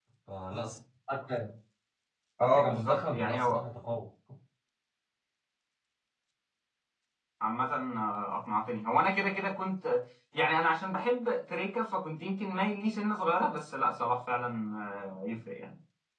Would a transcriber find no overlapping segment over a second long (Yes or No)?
No